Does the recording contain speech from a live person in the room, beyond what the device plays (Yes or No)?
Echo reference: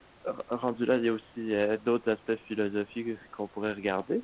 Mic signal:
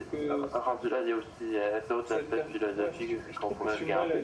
Yes